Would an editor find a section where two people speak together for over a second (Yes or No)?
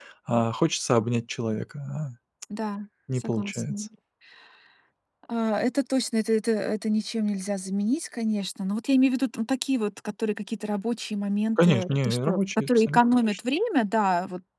Yes